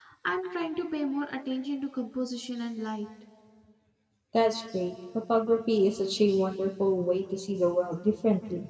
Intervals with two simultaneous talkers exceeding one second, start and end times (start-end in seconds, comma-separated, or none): none